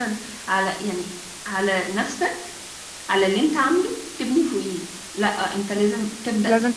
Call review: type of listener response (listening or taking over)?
listening